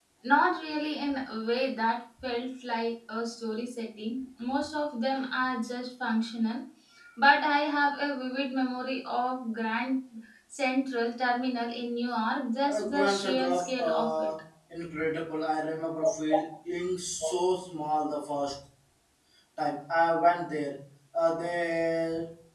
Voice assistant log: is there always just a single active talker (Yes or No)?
No